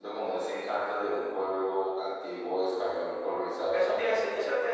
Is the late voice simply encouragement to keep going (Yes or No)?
No